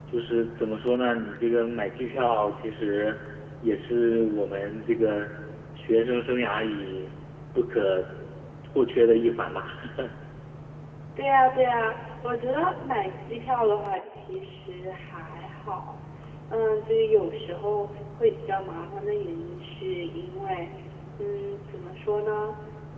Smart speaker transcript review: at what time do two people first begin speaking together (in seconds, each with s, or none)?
none